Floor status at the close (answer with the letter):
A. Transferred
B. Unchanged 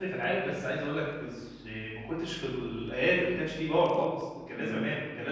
B